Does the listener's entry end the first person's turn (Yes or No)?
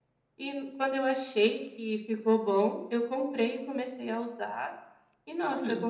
No